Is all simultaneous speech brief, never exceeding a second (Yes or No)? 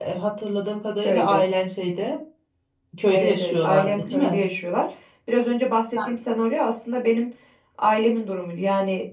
No